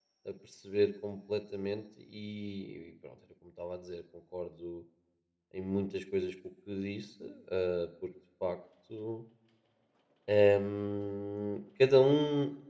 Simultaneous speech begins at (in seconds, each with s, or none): none